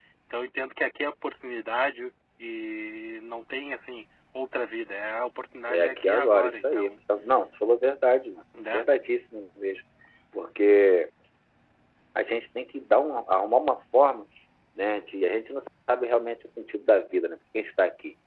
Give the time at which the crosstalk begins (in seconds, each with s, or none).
5.7 s